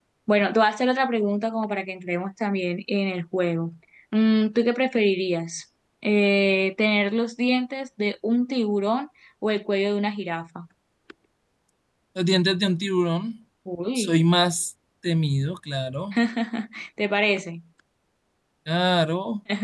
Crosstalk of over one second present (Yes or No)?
No